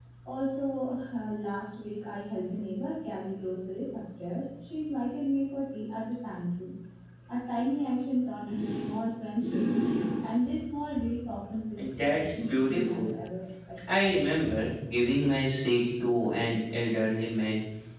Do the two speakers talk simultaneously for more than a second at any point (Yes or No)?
Yes